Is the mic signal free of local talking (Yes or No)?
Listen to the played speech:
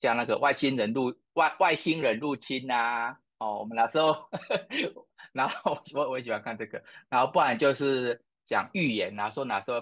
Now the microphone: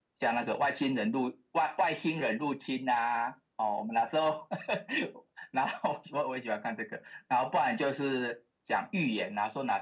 Yes